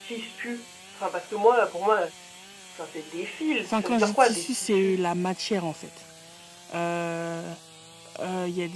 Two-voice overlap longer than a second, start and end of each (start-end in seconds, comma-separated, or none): 3.6-5.0